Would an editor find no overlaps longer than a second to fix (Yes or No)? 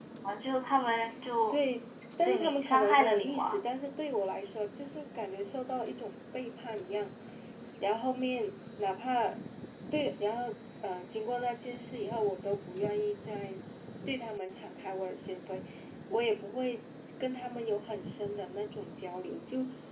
No